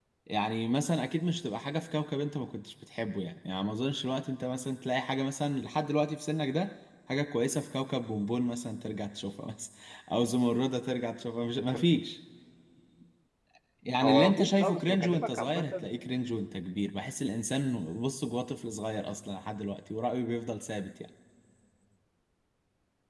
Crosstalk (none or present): present